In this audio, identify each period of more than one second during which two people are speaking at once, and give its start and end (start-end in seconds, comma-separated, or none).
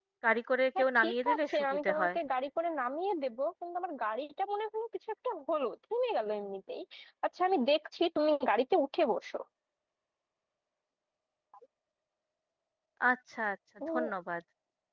0.8-2.2